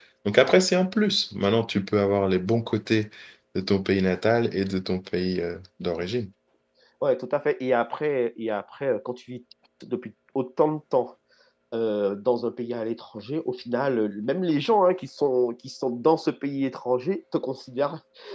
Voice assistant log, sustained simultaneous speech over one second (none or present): none